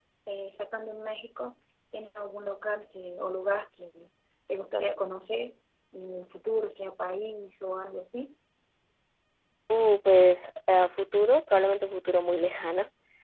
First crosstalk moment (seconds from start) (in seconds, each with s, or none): none